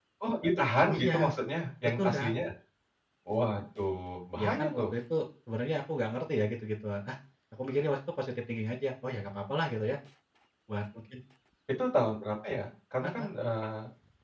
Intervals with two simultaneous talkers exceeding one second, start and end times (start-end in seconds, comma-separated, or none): none